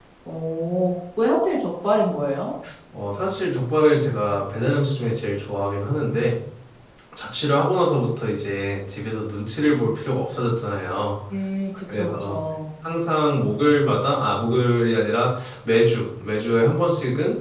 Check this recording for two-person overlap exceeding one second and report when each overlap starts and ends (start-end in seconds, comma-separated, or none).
none